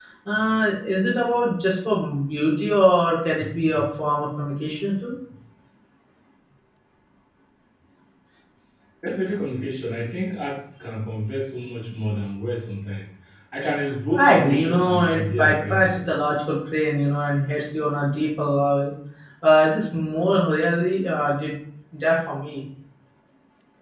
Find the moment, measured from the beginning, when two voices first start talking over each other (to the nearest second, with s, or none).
14 s